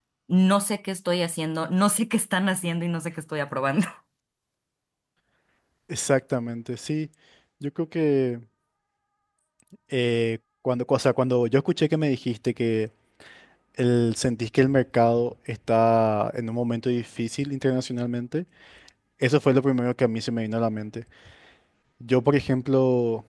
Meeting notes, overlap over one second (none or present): none